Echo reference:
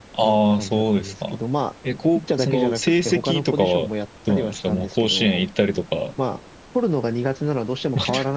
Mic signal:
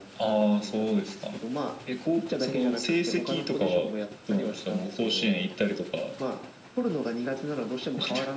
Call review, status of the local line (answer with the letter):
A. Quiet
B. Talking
A